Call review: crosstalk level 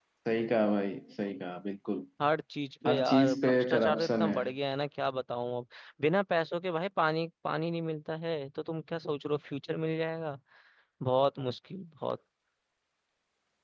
present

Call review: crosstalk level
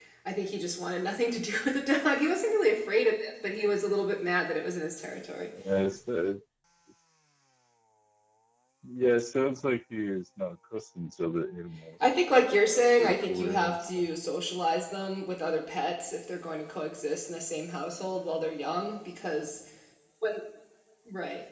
present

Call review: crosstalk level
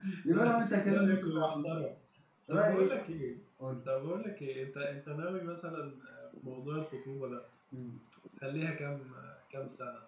present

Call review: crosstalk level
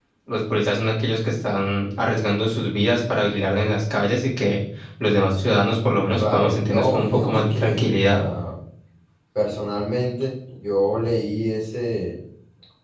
present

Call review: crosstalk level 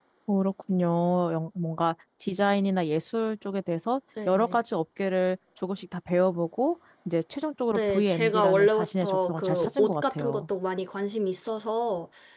present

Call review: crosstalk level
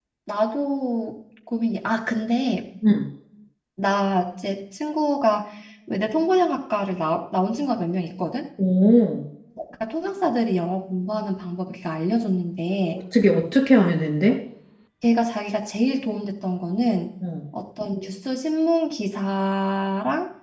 none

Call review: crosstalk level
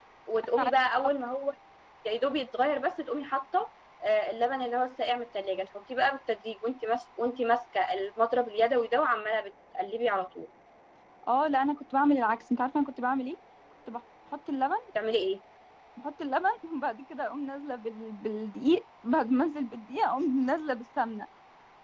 none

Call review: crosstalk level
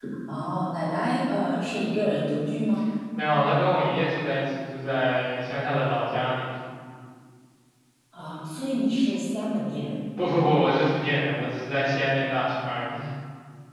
none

